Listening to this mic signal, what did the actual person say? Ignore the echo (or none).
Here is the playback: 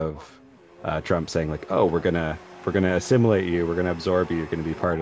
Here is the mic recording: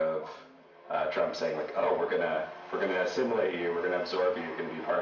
none